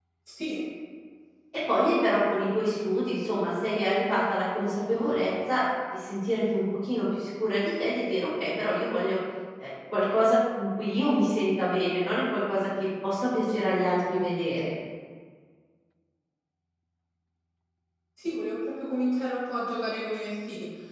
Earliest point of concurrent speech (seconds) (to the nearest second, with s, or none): none